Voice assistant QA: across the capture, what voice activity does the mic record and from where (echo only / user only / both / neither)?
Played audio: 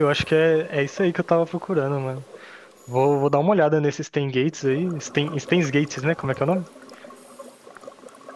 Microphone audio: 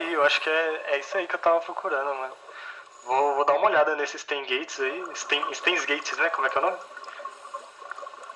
echo only